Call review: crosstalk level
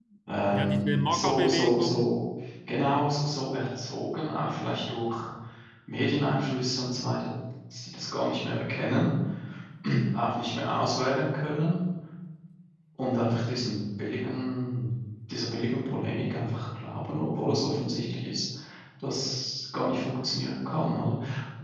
present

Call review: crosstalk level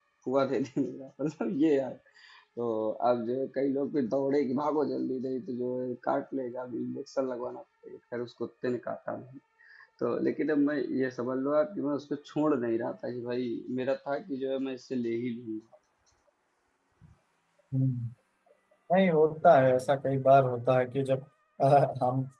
none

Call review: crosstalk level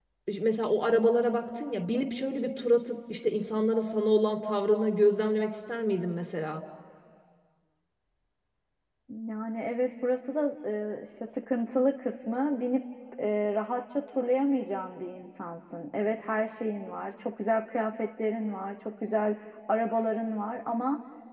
none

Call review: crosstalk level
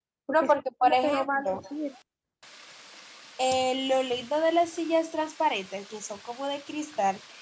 present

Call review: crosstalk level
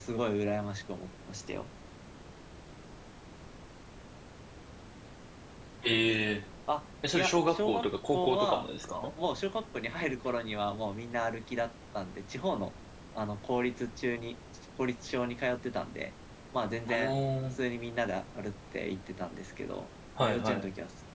present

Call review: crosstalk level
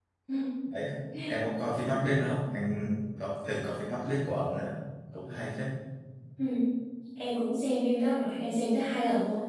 none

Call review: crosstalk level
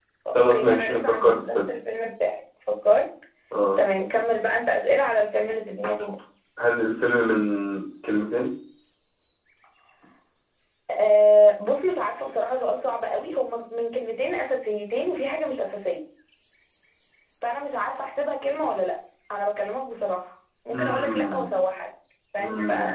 present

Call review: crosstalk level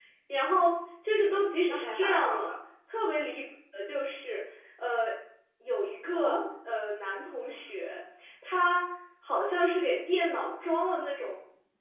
present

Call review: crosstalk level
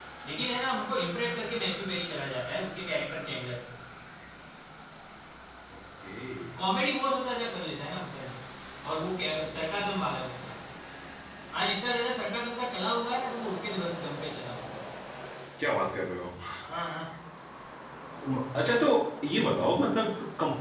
none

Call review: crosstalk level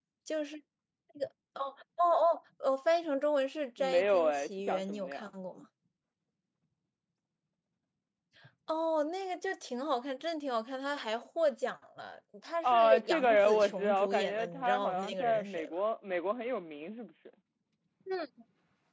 present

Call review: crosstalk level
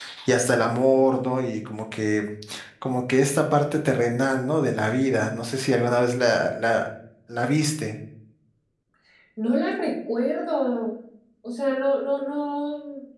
none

